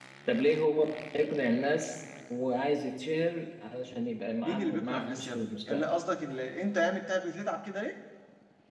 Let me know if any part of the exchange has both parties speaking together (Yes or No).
Yes